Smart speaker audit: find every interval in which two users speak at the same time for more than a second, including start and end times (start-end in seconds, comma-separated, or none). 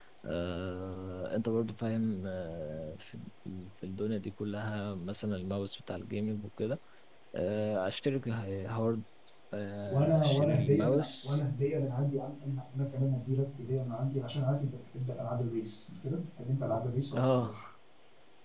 9.9-11.4